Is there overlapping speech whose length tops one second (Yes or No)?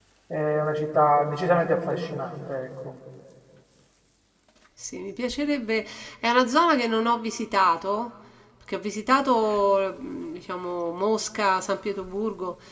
No